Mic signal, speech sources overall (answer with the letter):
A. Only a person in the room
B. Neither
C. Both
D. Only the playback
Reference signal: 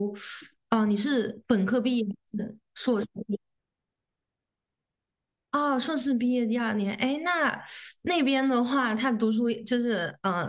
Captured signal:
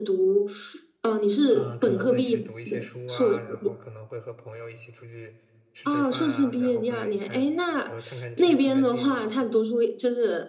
C